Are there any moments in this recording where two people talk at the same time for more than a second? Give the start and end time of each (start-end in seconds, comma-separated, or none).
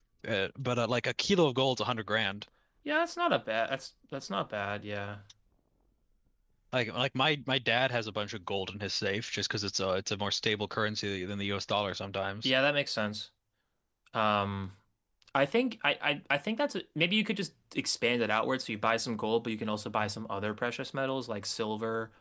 none